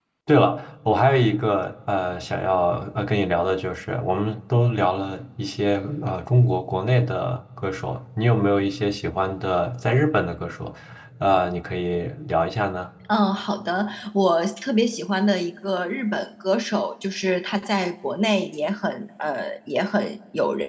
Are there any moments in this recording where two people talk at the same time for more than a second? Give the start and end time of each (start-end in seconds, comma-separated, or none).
none